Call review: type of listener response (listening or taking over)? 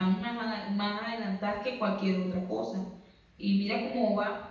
listening